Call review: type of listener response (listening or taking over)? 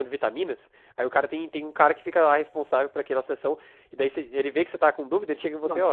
listening